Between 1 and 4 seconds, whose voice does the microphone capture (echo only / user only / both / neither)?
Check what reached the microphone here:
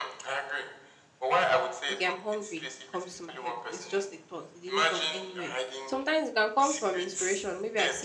both